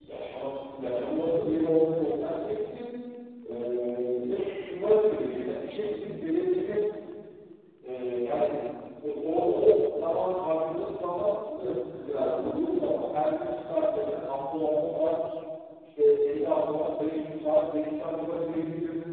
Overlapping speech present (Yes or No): No